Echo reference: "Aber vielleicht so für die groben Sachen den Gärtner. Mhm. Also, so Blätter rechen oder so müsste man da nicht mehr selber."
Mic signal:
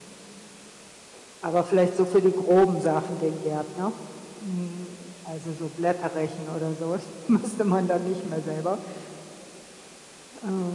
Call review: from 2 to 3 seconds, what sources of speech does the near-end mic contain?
echo only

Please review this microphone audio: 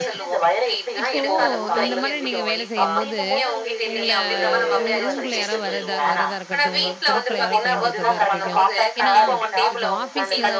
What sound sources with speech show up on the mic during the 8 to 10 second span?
both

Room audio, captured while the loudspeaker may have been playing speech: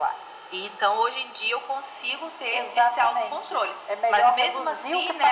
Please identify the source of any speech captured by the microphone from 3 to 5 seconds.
echo only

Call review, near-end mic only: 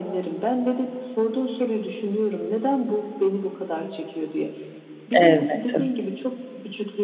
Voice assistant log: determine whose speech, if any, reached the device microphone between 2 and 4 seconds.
echo only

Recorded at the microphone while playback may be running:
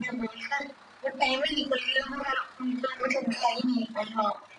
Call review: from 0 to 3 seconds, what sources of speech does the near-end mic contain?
echo only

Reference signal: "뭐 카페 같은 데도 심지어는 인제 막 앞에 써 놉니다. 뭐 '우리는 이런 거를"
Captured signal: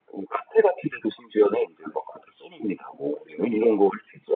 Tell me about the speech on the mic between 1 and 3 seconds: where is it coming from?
echo only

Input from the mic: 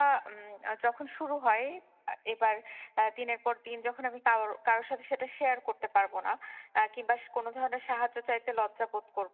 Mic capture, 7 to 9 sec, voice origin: echo only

